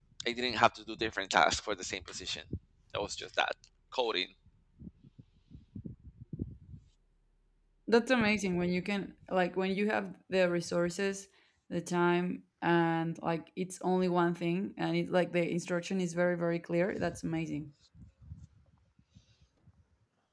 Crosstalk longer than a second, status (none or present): none